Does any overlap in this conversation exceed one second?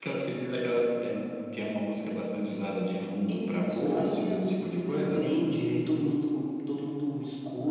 Yes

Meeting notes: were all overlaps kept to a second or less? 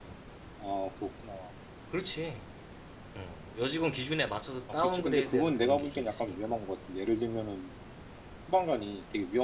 No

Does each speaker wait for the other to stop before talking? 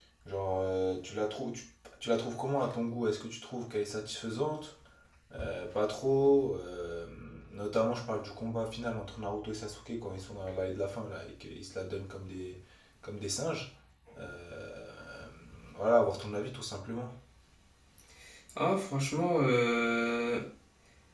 Yes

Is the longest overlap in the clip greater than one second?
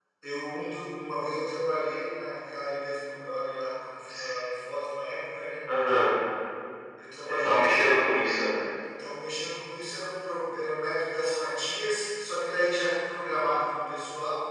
No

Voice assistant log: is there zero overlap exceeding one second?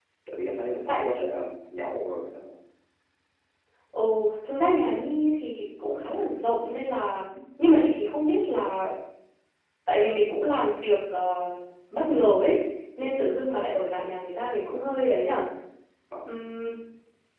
Yes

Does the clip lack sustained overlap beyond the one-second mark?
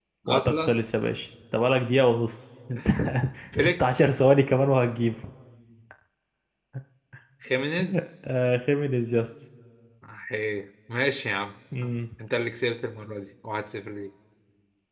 Yes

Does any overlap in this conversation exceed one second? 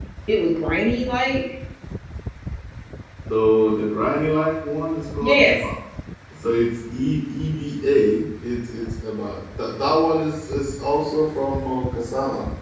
No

